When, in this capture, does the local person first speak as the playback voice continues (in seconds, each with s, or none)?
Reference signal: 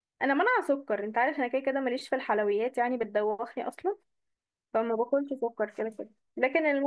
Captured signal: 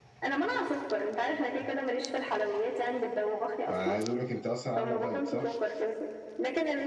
3.6 s